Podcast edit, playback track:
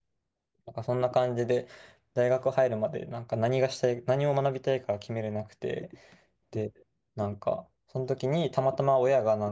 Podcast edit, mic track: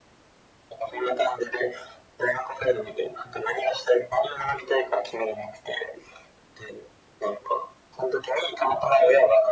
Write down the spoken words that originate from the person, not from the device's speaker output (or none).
none